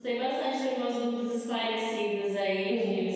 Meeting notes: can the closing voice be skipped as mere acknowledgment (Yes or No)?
No